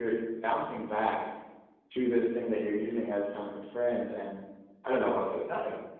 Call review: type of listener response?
listening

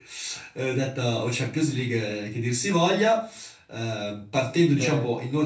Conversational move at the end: listening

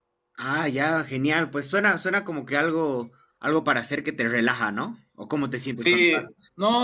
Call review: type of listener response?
taking over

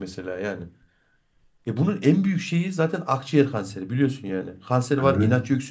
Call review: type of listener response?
listening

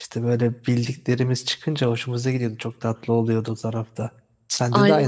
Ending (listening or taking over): taking over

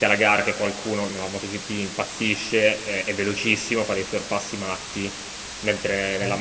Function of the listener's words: listening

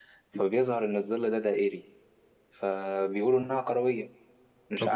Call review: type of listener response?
taking over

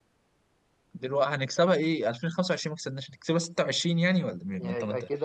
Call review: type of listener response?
taking over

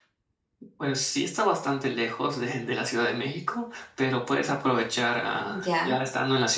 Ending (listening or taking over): listening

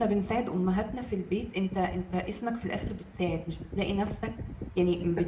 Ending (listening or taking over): listening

